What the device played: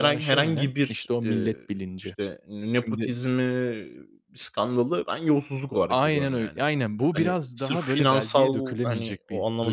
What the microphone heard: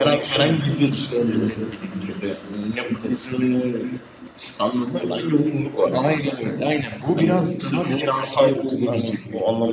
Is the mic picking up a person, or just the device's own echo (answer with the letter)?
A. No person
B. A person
A